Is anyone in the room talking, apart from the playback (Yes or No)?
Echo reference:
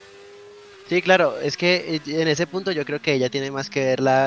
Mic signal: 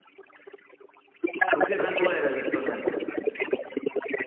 Yes